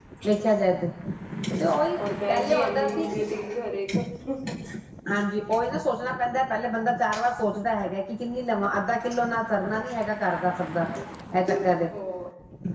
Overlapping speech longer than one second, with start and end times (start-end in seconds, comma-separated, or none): 2.0-3.2